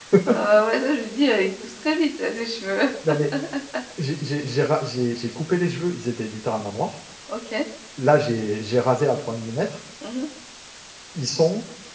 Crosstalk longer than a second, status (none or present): none